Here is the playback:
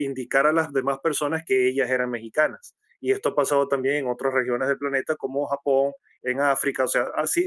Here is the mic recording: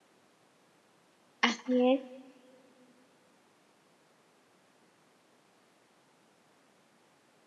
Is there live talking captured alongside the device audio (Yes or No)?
Yes